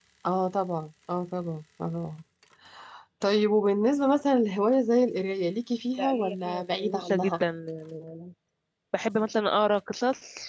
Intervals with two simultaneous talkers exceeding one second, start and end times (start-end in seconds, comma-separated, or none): 6.0-7.4